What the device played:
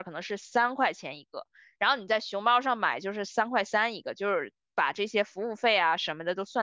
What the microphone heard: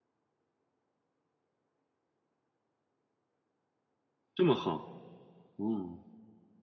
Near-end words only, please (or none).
这么好，哦，